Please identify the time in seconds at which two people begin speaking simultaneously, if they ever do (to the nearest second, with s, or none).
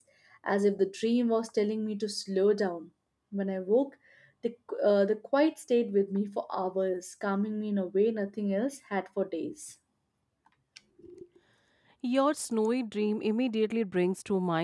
none